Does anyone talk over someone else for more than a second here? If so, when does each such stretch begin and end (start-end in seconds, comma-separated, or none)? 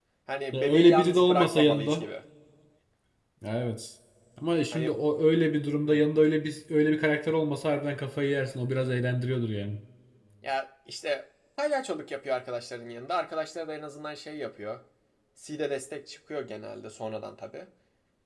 0.5-2.0